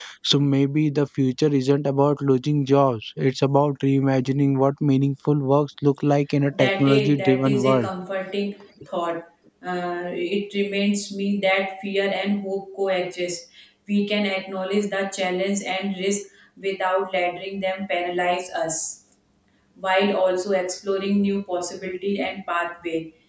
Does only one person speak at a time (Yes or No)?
No